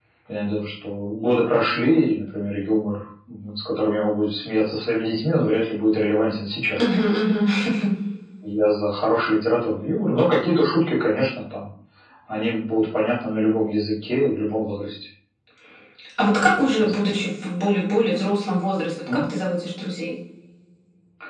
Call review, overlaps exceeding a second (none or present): none